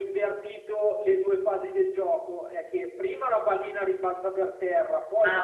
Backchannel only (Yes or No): Yes